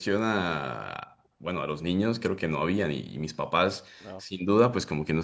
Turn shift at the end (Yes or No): No